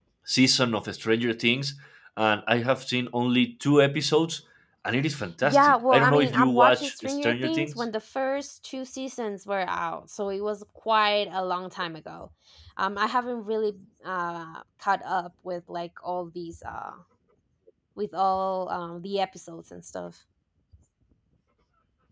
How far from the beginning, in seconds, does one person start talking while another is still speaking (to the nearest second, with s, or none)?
5 s